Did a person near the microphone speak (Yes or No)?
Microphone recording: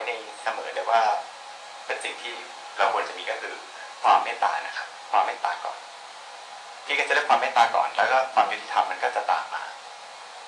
No